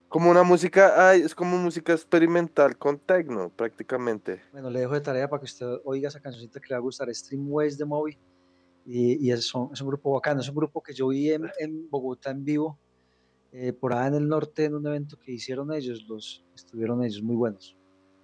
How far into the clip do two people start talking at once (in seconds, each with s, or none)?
none